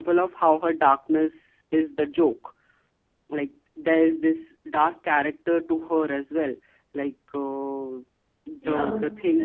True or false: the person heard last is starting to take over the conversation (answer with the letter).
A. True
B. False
A